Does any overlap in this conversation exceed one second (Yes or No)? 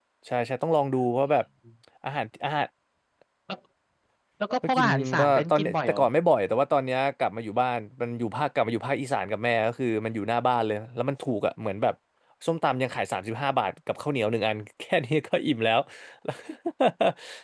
Yes